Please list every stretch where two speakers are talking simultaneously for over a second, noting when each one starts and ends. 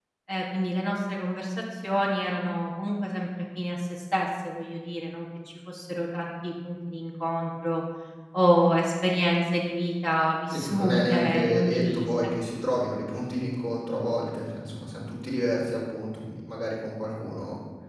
10.5-12.1

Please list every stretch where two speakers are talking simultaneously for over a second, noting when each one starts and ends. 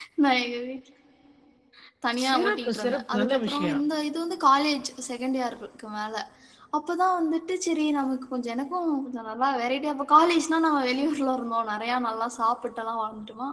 2.2-3.8

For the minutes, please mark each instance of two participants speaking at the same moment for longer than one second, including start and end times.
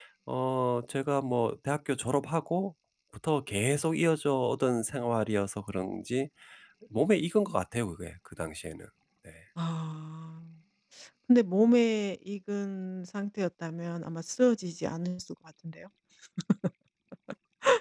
none

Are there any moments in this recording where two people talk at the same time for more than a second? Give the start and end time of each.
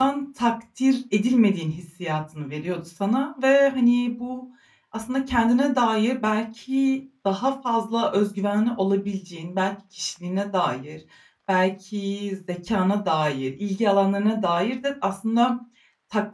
none

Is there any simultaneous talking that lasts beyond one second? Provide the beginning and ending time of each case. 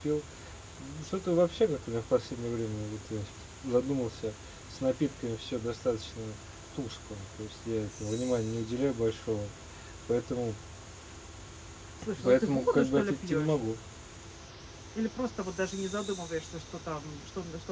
12.2-13.6

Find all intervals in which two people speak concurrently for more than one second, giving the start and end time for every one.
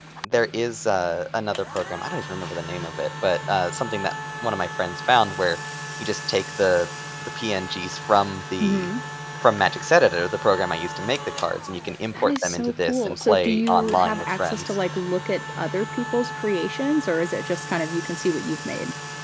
12.1-14.8

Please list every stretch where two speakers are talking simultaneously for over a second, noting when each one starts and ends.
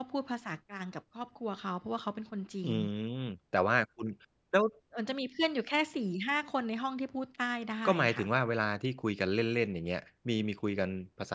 none

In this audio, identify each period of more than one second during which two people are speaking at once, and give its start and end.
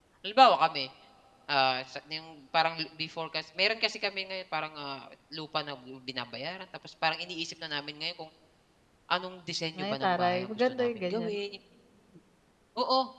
9.8-11.3

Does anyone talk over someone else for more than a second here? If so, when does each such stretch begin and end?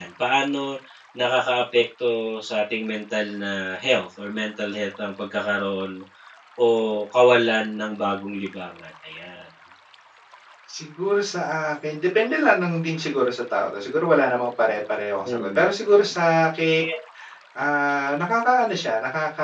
none

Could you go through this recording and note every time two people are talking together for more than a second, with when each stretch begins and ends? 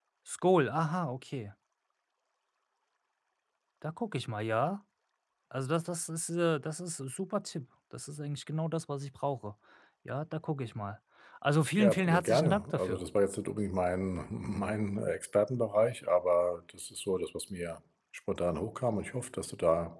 11.8-13.0

